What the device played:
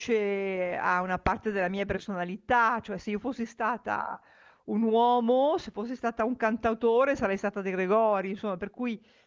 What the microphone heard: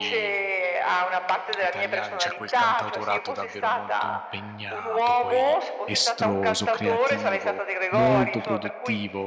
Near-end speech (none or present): present